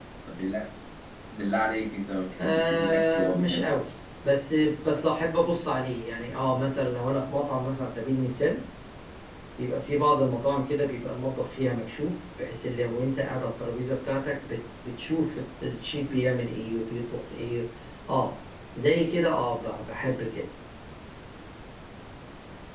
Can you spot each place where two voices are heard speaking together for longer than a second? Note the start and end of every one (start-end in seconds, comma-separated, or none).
2.4-3.7